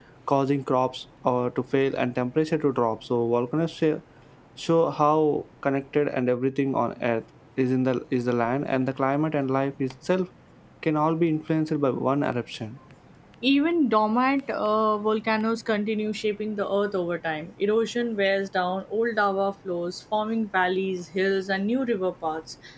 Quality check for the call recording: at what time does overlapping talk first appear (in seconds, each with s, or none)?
none